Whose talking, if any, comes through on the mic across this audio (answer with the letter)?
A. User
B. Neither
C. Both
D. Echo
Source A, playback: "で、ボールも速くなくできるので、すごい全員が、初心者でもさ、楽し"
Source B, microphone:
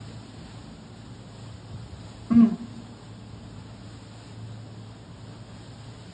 A